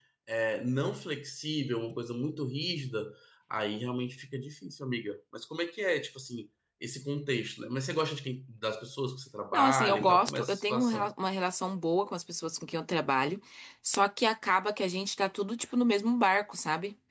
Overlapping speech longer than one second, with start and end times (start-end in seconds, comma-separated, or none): 9.5-11.1